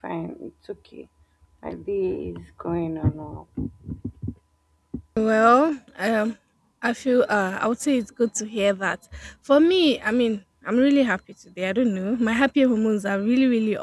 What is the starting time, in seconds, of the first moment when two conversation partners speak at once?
none

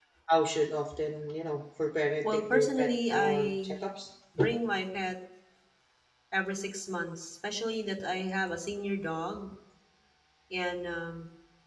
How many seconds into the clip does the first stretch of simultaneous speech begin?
2.2 s

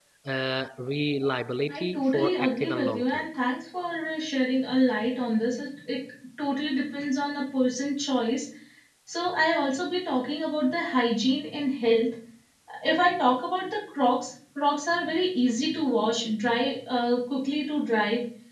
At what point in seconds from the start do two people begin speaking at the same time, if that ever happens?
1.7 s

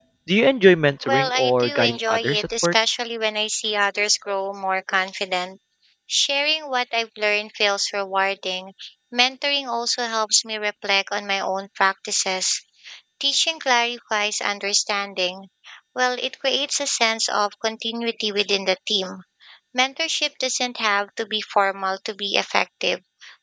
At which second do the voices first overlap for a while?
1.1 s

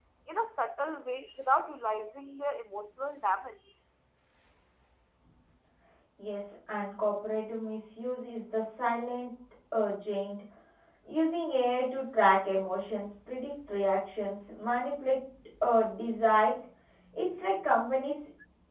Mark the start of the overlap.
none

